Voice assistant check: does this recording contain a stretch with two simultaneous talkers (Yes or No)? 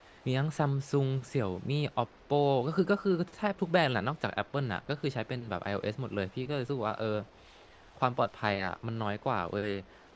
No